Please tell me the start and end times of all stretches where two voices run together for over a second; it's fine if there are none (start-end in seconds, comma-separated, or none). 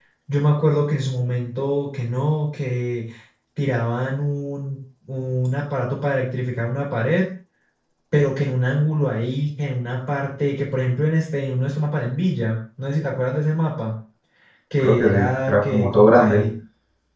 14.8-16.5